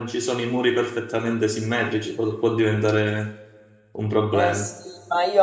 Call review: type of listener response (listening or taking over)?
taking over